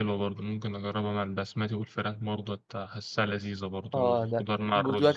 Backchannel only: No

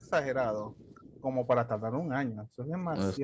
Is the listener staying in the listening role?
No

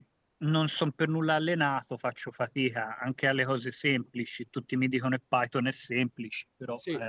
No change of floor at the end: No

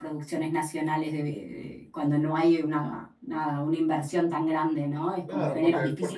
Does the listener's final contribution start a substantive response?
Yes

